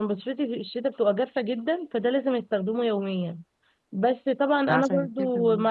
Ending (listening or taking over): listening